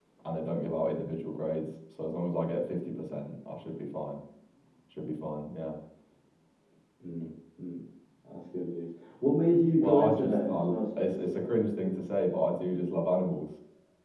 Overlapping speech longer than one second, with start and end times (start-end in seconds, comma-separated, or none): 9.8-11.2